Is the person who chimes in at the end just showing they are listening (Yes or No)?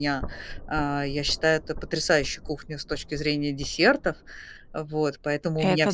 Yes